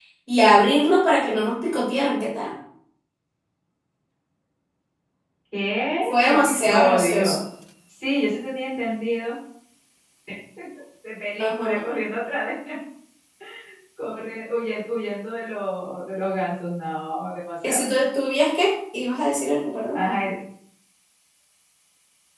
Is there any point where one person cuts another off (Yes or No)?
Yes